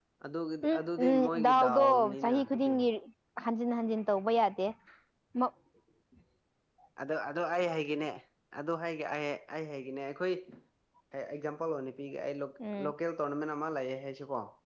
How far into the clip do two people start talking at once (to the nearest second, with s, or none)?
1 s